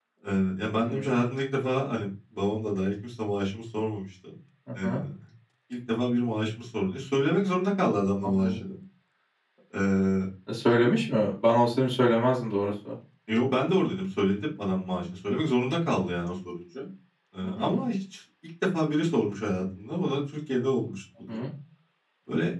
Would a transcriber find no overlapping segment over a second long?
Yes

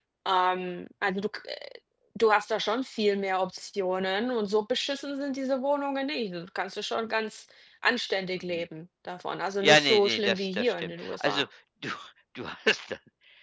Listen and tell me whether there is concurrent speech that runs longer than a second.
Yes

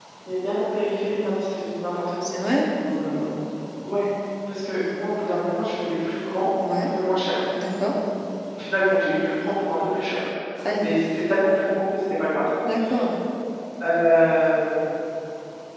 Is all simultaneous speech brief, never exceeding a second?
Yes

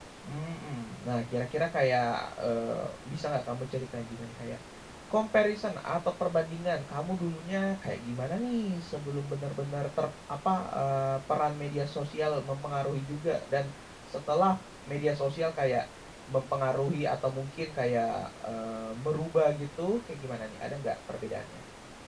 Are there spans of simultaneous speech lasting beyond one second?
No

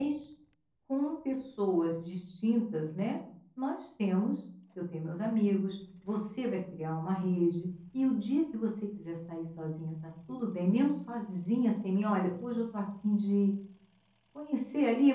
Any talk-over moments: No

